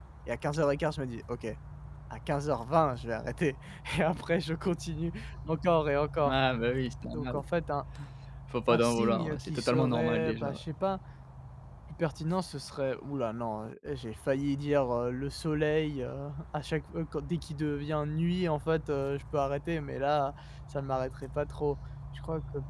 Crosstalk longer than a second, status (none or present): present